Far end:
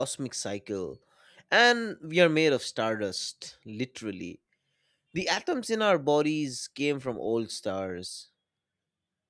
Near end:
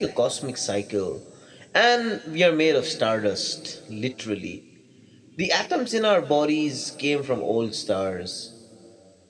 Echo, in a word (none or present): present